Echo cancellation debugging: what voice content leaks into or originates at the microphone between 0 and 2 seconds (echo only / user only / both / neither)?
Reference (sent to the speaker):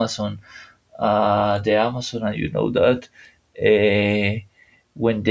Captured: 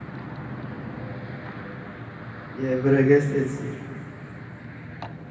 neither